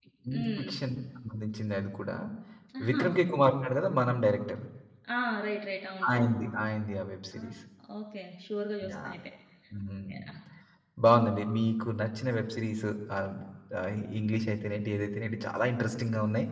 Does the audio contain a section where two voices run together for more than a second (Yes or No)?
No